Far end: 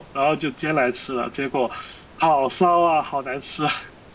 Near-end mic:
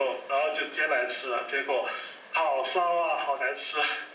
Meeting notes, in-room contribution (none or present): none